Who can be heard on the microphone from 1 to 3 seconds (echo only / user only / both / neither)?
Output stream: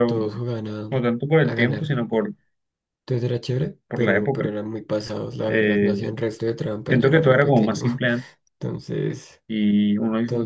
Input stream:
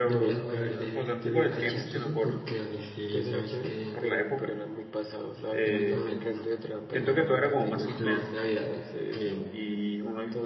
both